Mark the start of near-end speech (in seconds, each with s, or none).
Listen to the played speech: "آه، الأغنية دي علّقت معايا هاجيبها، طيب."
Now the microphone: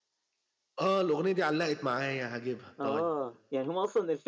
2.8 s